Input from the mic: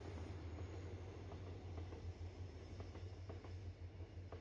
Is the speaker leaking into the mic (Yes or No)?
No